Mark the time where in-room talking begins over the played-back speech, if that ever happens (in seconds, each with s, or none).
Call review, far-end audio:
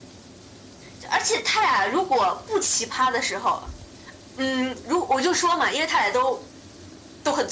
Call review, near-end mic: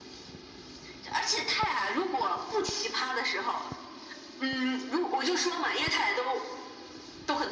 none